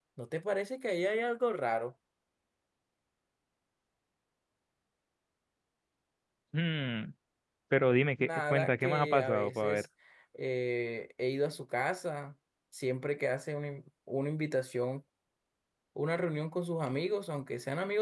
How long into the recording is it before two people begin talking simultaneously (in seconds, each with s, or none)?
8.2 s